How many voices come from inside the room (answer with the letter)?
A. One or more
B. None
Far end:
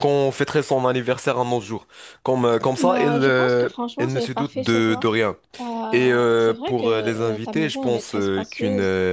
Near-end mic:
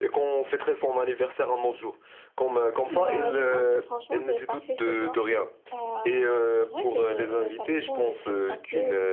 B